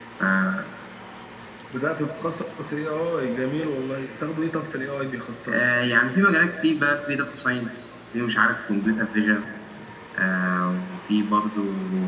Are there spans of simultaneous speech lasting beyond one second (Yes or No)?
No